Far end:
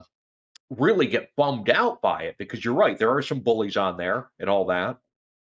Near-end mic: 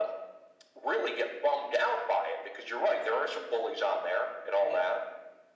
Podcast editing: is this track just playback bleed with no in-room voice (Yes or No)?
No